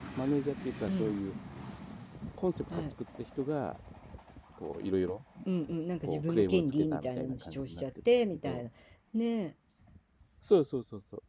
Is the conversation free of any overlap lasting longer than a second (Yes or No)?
No